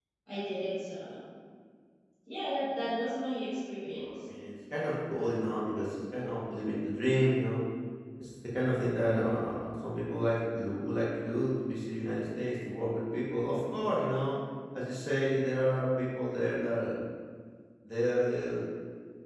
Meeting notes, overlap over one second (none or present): none